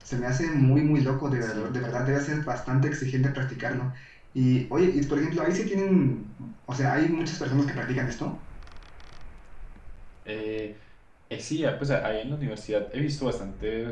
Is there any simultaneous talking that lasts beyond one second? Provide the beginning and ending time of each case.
none

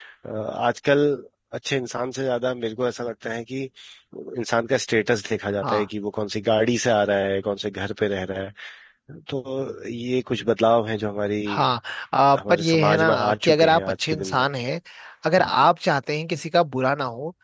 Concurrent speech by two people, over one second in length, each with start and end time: 12.4-14.5

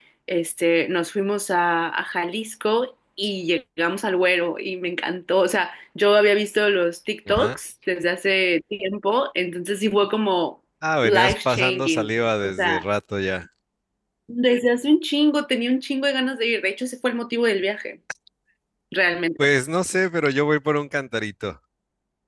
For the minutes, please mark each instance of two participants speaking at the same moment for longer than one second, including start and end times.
11.0-12.8

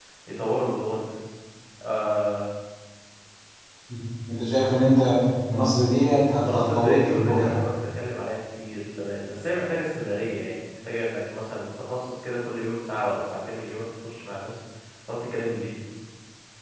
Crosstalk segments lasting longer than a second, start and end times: 6.4-7.7

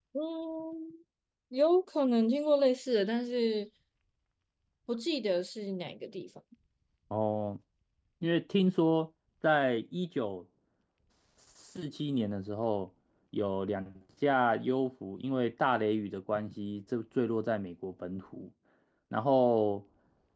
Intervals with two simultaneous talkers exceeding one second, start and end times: none

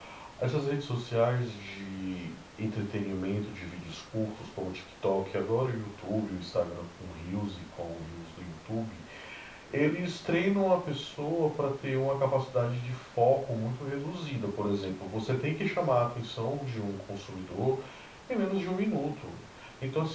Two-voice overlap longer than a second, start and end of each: none

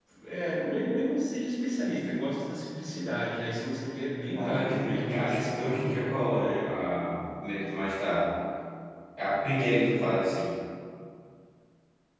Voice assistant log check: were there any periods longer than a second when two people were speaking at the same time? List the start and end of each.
4.3-6.1

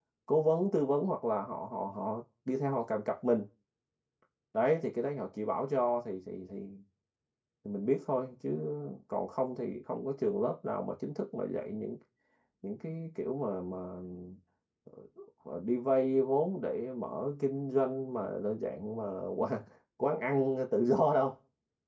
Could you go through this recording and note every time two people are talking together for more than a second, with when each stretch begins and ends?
none

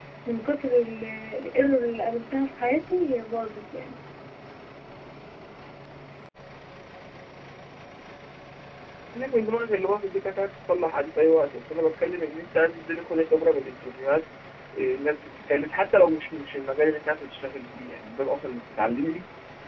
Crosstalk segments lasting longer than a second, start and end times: none

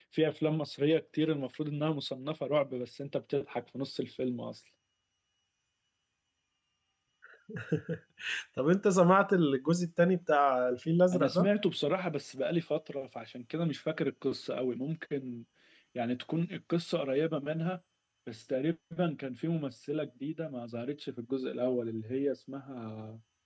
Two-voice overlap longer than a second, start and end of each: none

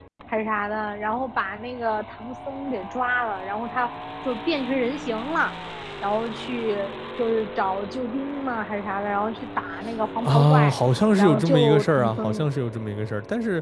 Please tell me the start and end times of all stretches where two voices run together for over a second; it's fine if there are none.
11.2-12.5

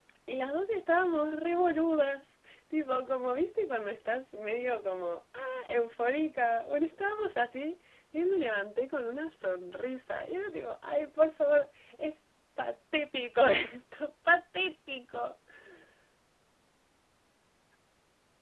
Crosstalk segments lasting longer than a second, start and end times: none

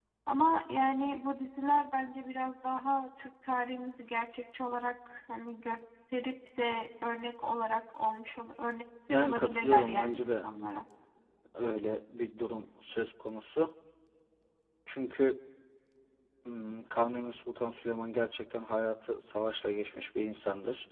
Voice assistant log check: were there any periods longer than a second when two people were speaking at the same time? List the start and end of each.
9.2-10.4

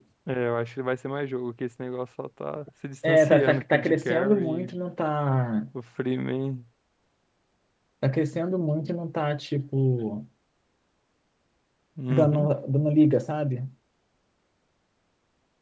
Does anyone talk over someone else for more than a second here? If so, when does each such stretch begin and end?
3.0-4.7

